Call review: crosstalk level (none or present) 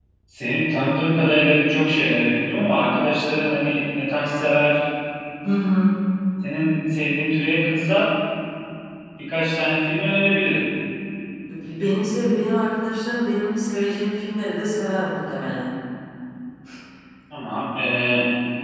none